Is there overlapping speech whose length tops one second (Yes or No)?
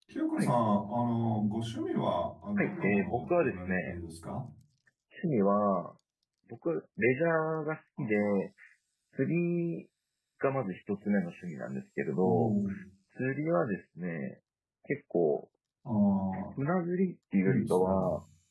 Yes